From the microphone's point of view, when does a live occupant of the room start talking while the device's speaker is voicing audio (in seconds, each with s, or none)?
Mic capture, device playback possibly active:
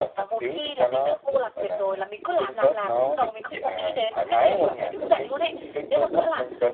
none